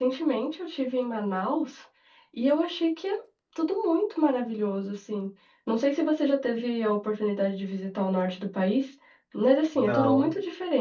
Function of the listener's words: listening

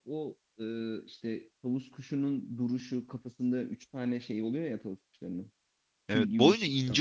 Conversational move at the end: taking over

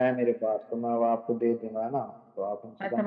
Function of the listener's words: taking over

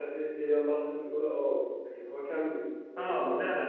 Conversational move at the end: taking over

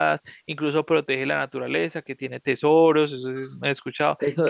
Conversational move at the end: taking over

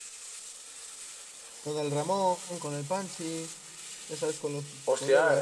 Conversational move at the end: taking over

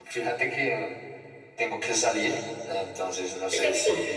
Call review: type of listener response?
listening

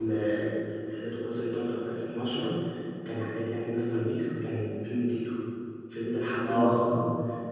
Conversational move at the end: listening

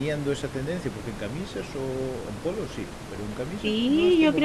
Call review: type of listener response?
taking over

